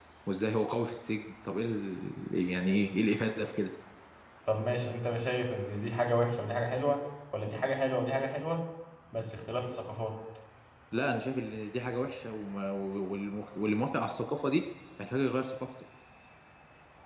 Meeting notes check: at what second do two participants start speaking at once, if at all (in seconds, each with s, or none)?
none